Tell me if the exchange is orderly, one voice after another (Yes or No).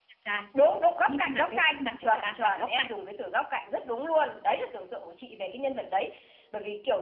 No